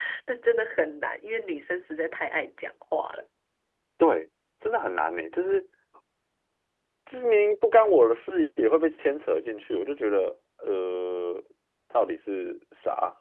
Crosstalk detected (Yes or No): No